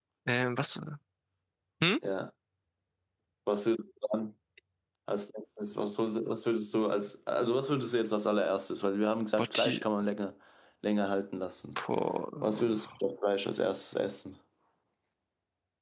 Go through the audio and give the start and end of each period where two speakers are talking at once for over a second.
none

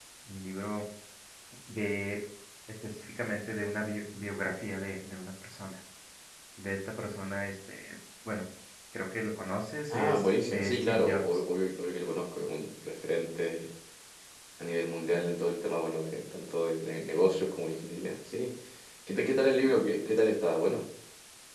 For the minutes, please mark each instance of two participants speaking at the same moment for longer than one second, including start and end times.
9.9-11.4

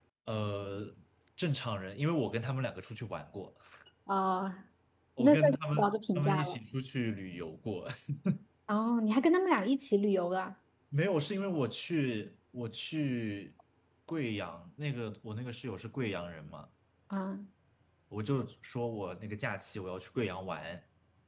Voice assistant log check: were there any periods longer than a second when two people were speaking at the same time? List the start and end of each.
5.2-6.6

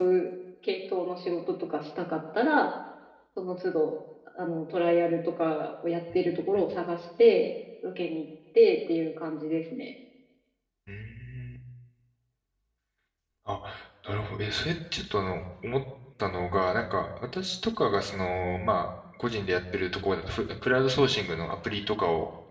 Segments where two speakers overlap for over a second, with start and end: none

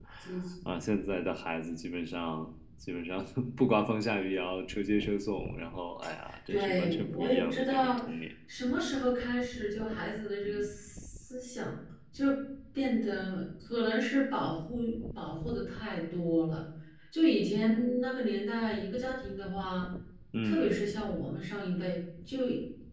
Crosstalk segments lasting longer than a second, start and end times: 6.5-8.0

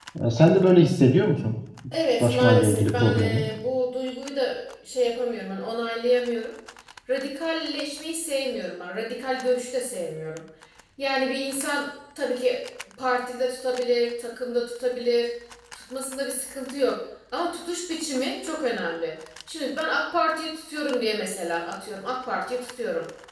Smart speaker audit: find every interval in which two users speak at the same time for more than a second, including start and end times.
2.2-3.4

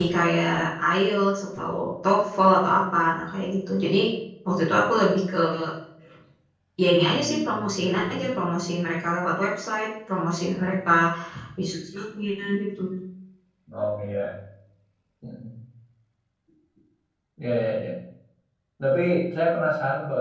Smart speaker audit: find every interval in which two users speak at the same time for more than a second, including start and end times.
7.0-8.3

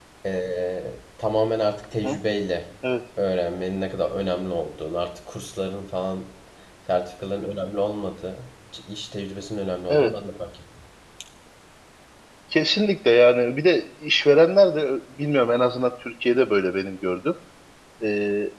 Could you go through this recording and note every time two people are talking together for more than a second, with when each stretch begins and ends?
none

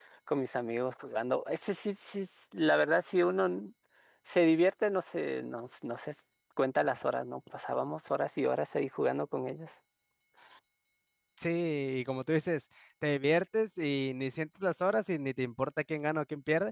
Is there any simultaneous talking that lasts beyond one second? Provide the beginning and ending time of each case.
none

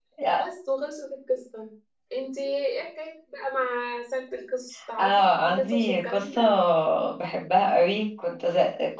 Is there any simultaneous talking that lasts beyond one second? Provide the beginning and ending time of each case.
5.0-6.4

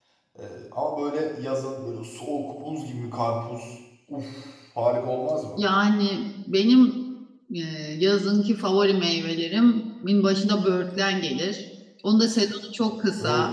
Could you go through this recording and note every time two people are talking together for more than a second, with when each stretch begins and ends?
none

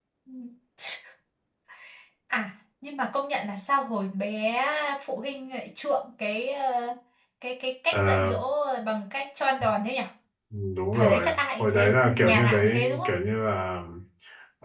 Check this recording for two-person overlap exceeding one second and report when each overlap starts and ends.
10.9-13.1

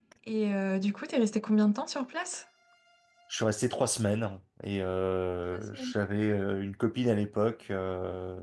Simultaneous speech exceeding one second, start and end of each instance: none

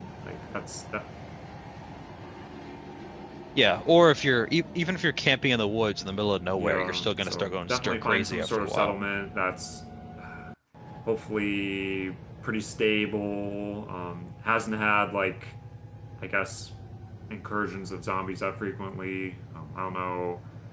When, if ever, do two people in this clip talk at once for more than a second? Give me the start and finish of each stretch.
6.5-8.9

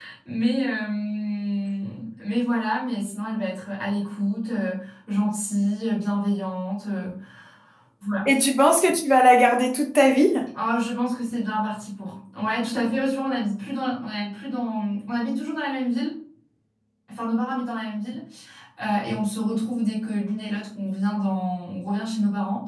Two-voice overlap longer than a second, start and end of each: none

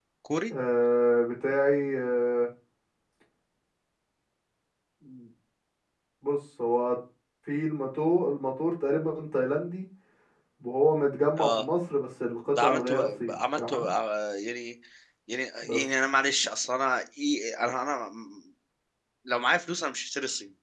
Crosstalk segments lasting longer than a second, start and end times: 12.6-13.9

